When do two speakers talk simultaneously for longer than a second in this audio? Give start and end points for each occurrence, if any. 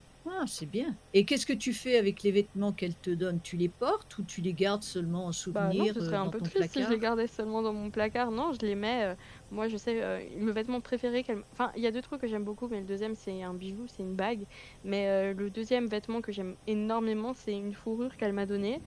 5.5-7.0

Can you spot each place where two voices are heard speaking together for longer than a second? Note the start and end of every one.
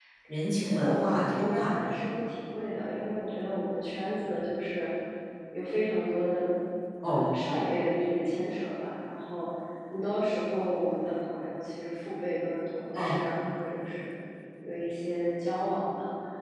0.6-2.0

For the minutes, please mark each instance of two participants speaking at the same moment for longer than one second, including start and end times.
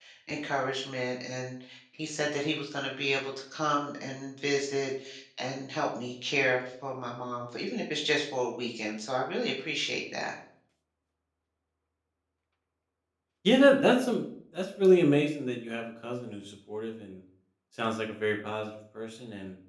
none

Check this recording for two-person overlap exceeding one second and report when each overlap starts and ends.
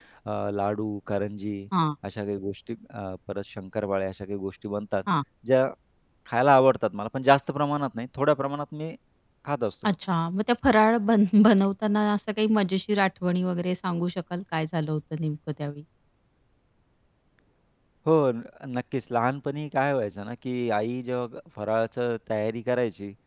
none

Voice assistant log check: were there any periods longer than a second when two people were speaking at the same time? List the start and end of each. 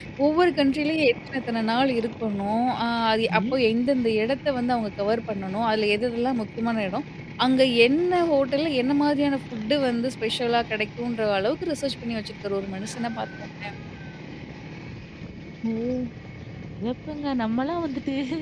none

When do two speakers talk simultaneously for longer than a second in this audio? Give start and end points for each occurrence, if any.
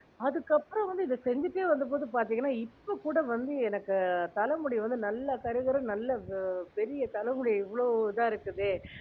none

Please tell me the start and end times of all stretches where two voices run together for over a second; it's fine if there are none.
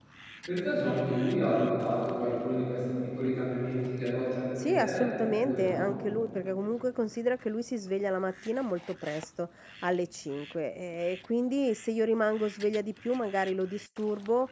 4.6-5.9

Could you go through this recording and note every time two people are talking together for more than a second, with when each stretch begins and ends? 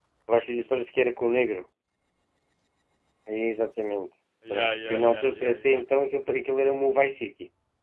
4.5-5.8

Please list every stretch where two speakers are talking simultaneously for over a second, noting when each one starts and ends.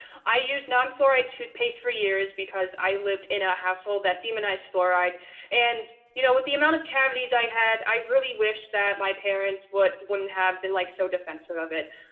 none

